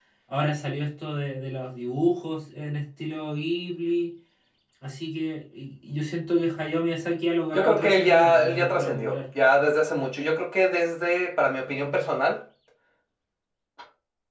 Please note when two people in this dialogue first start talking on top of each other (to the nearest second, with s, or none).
8 s